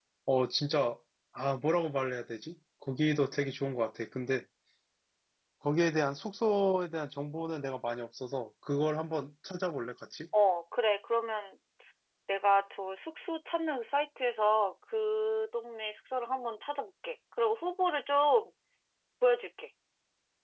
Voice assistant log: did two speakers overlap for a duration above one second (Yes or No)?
No